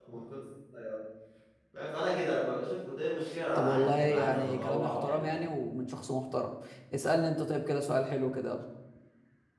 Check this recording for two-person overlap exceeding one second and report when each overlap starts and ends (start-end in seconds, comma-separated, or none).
3.5-5.4